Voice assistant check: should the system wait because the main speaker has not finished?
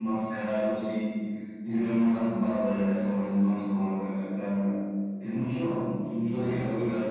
No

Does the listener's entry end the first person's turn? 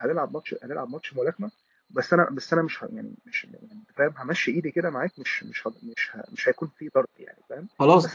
No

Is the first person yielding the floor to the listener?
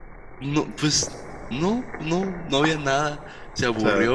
No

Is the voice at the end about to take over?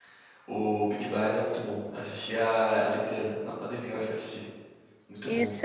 Yes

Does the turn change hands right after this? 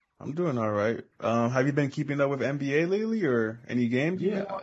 Yes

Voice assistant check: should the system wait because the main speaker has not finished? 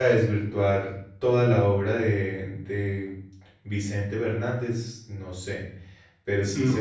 Yes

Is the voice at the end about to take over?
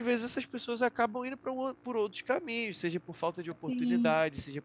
No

